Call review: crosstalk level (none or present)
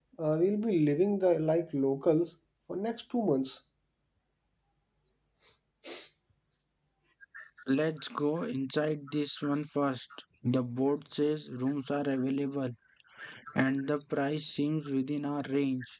none